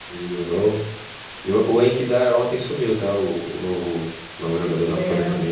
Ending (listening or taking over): taking over